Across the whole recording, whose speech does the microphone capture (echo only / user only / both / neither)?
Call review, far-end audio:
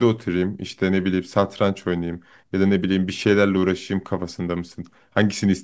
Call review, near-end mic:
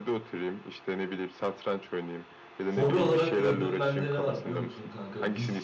both